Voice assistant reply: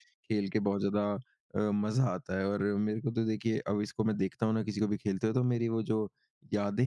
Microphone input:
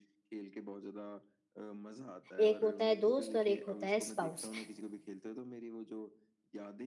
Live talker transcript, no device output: एक होता है दोस्त और एक होता है स्पाउस।

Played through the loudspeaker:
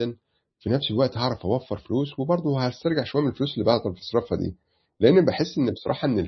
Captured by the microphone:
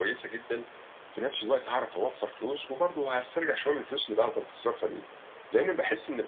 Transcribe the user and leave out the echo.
none

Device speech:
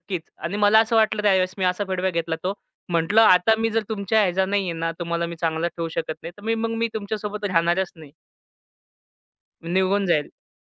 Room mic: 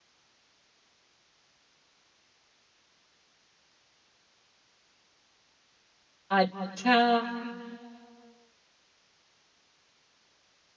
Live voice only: अच्छा.

